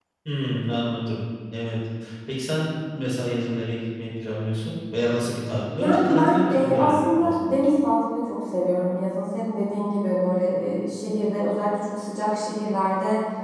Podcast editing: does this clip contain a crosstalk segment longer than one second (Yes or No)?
Yes